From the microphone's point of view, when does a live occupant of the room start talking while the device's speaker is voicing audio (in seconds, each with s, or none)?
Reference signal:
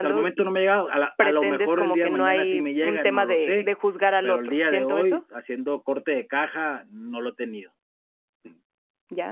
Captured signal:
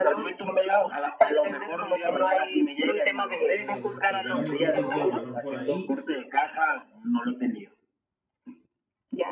3.6 s